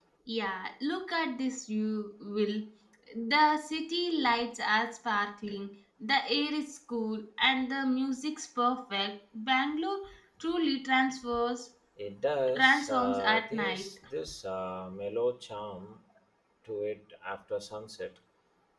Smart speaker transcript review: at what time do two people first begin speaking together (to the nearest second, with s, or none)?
13 s